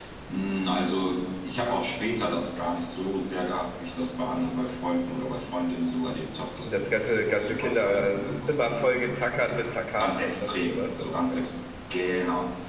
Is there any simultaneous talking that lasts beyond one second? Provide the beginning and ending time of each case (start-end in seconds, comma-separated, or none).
6.6-11.2